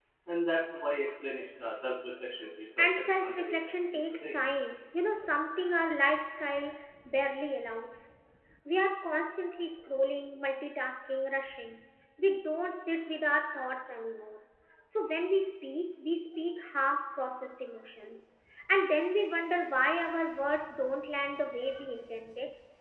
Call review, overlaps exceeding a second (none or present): present